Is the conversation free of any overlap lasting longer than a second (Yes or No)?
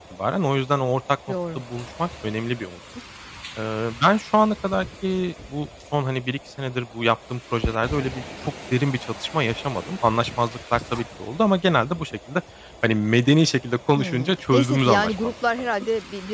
No